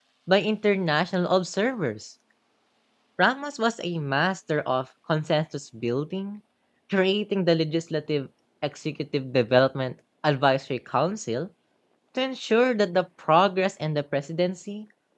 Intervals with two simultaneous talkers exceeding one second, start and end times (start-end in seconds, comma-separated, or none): none